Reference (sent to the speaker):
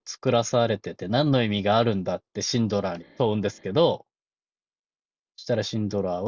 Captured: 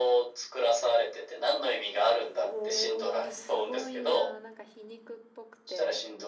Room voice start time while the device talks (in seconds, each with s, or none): 2.4 s